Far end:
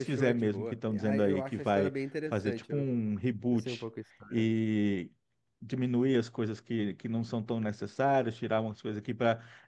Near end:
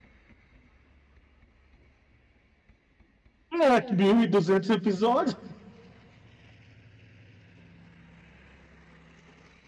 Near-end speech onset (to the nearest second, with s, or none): 4 s